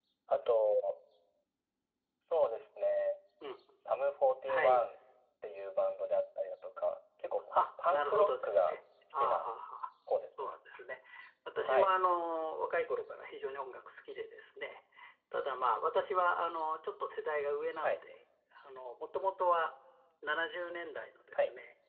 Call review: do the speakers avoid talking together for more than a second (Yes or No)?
No